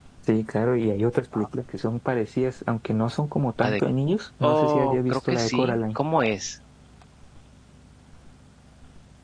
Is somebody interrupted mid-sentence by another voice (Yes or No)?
Yes